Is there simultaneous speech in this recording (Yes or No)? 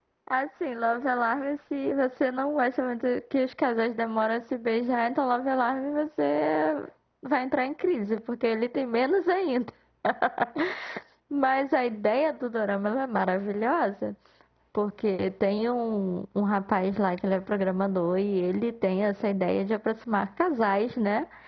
No